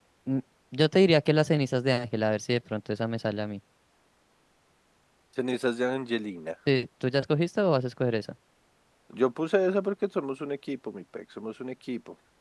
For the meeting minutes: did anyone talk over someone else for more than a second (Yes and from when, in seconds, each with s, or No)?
No